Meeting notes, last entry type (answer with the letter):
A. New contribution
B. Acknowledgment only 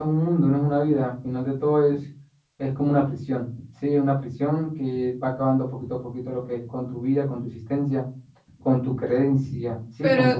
A